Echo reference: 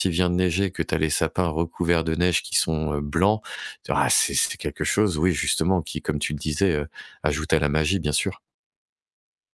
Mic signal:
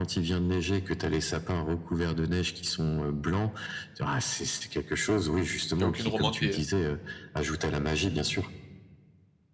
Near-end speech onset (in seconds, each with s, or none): 5.8 s